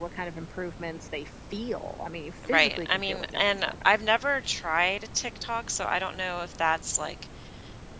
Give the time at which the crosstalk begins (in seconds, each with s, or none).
2.4 s